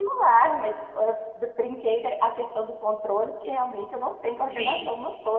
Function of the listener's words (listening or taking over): taking over